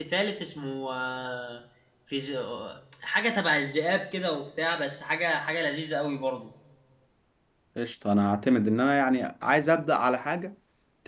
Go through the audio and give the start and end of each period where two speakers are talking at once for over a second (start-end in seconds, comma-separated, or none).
none